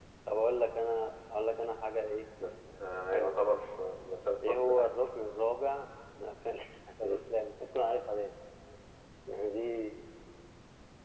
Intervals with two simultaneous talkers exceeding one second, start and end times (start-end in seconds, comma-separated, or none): none